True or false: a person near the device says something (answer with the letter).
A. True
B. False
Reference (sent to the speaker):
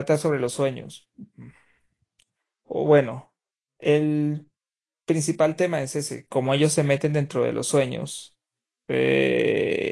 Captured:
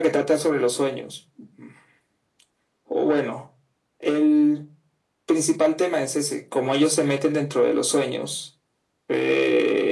B